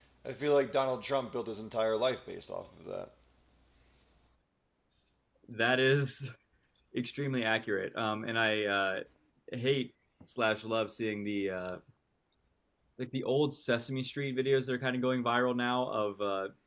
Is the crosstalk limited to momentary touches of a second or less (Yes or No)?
Yes